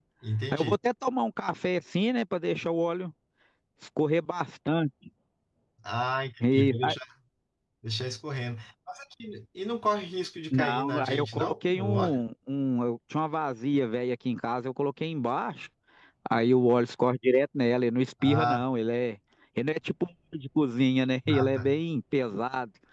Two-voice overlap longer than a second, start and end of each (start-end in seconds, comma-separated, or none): 10.5-12.2